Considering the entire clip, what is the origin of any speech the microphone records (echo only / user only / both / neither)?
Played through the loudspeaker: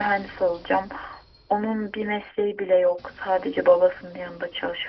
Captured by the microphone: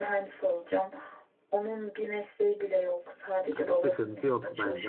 both